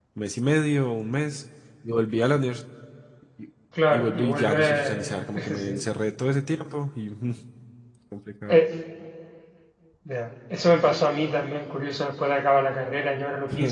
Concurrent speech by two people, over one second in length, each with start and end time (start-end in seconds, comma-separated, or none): 3.9-5.8